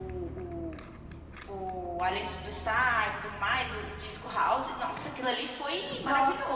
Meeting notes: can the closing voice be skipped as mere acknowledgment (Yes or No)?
No